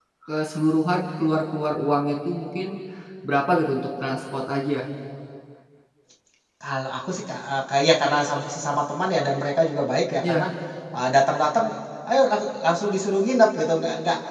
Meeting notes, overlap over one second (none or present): none